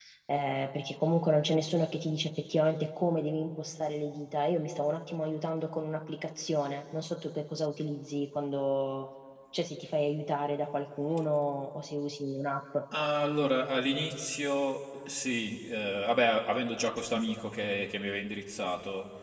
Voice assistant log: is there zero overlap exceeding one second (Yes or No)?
Yes